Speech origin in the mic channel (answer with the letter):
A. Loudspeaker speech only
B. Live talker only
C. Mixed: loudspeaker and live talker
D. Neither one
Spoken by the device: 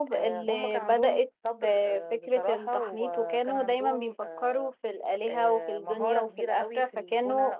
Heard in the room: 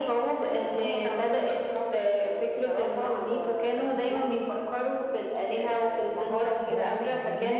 C